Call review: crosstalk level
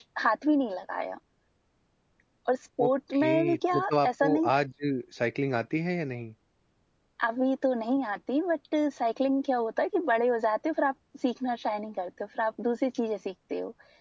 present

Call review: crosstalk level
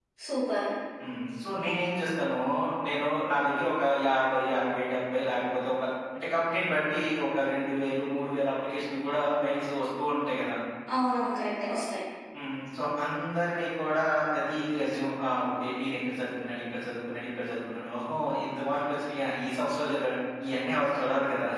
none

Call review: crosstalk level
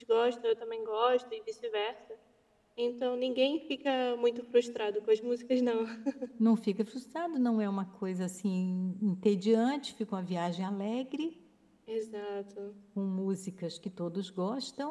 none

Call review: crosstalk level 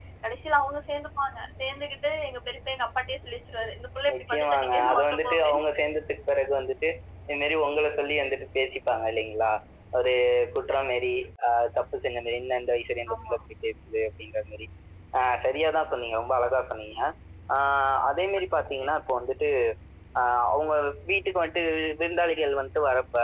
present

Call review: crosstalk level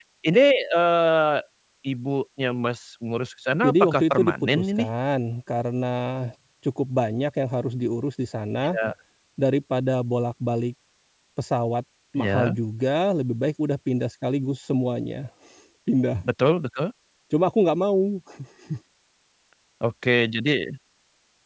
present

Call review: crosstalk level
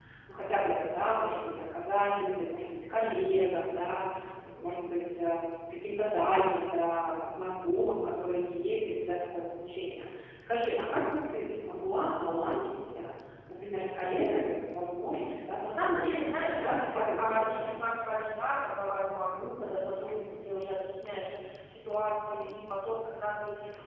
present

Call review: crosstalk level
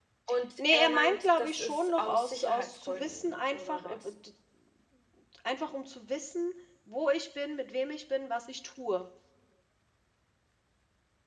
present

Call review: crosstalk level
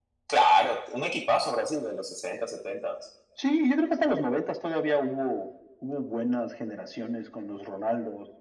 none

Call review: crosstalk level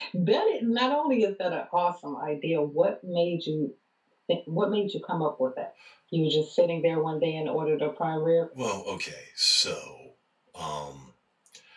none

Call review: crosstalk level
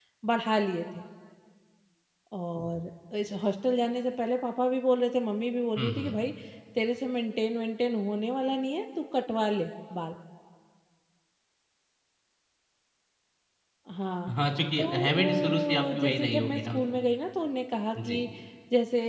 present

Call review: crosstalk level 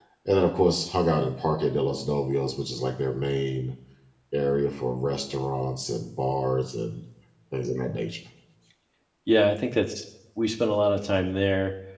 none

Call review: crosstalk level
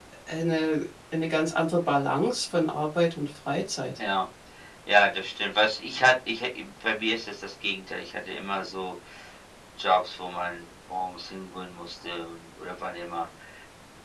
none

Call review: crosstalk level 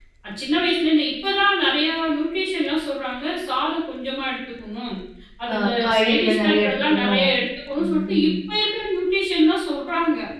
present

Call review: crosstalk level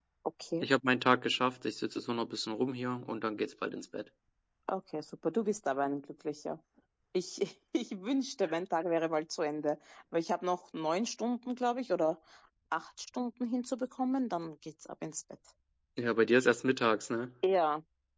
none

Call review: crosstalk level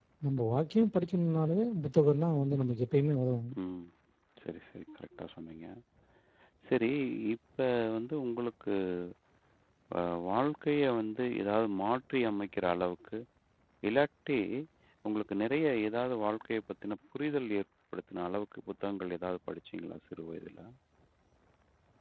none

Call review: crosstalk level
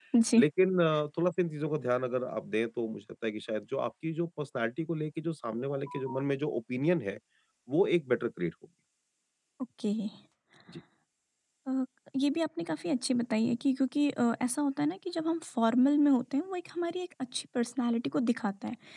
none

